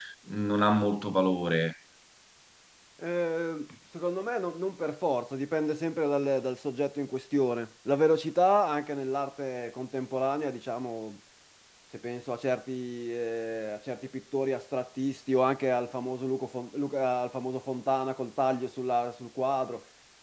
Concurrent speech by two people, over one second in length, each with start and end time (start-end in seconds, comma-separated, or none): none